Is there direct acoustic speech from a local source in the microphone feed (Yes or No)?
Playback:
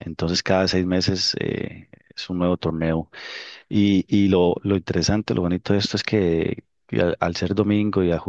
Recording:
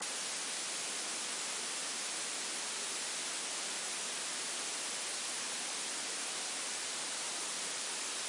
No